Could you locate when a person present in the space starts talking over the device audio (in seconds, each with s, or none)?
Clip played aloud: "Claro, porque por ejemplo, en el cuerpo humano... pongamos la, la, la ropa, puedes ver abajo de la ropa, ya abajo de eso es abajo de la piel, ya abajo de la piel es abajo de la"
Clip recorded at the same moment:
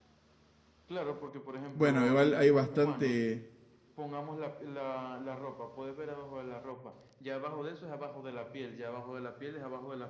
1.7 s